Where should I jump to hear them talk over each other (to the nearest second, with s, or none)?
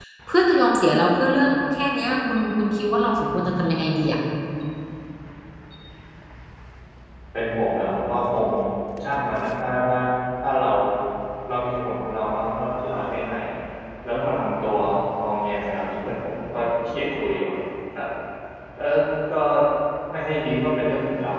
none